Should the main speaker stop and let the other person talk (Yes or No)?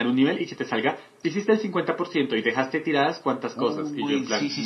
Yes